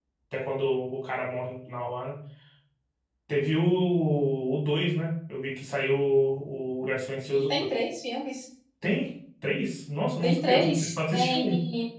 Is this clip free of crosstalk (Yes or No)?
No